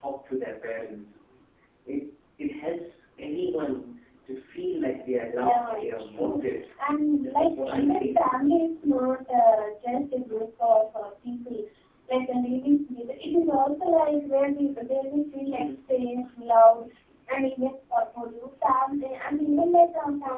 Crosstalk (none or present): present